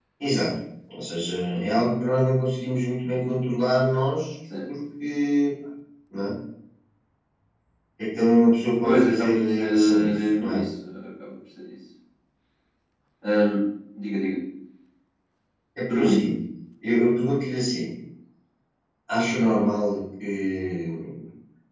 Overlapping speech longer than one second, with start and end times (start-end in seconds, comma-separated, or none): 8.8-10.6